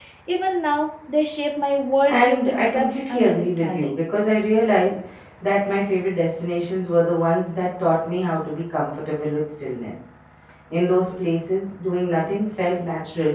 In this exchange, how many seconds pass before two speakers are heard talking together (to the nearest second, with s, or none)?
2 s